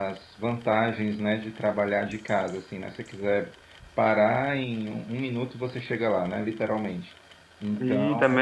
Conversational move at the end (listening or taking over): taking over